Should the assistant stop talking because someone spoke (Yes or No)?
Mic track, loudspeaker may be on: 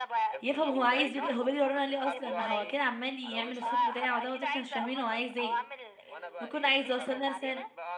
Yes